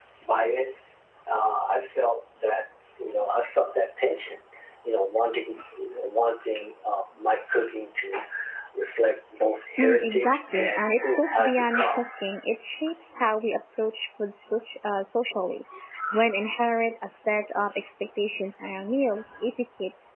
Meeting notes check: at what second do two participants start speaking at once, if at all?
10 s

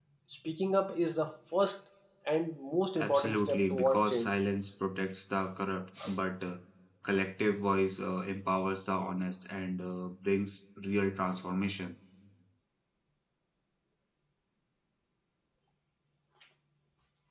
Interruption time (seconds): 3 s

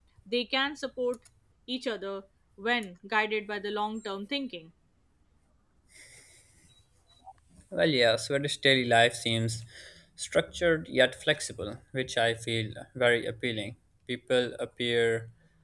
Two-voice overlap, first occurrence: none

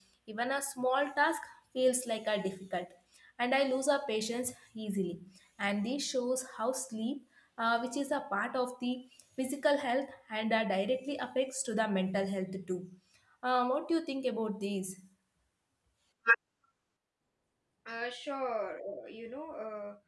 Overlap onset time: none

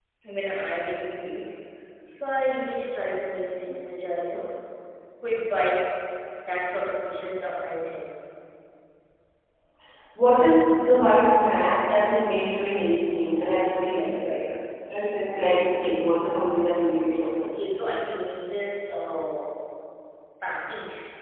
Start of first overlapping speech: none

